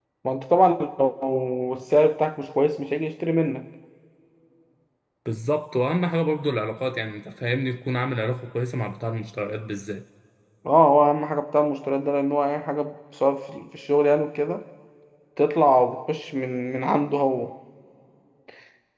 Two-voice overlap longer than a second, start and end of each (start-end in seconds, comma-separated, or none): none